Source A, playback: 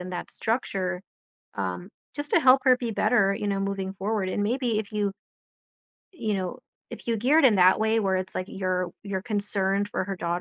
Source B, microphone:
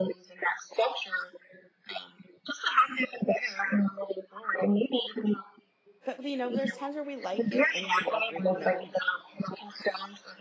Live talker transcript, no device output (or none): But, you know, there's times where we like it and we are great you know, we,